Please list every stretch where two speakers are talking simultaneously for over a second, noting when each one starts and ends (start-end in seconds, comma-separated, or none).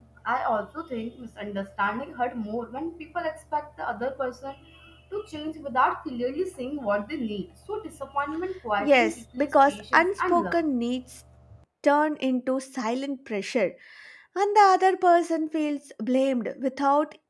8.8-10.6